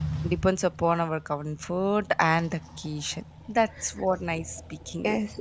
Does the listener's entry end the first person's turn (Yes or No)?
Yes